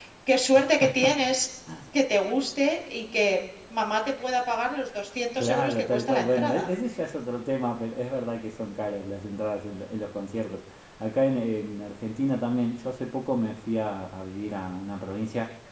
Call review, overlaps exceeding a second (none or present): present